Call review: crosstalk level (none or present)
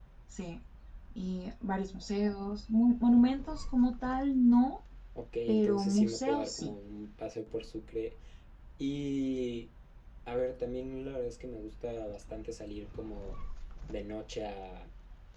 present